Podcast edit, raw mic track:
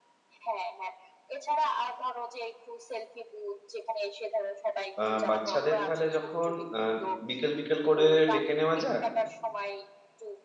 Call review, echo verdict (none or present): present